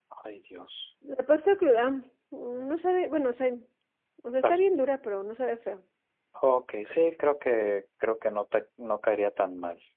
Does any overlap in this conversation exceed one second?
No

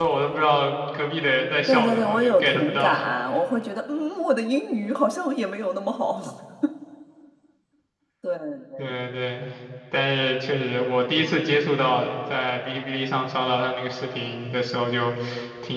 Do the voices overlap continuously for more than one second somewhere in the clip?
Yes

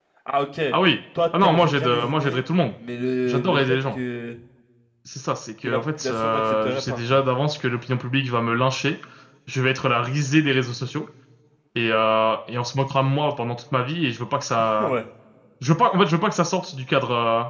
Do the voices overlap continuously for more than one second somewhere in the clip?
Yes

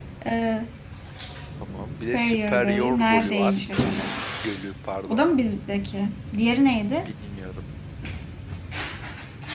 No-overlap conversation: No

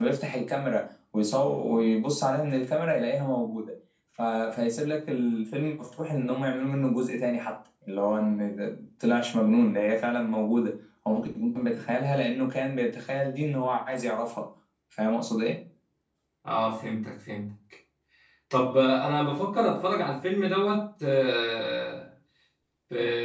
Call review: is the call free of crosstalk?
Yes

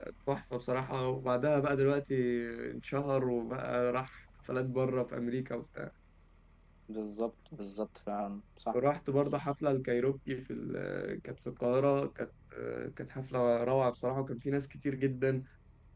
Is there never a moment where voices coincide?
Yes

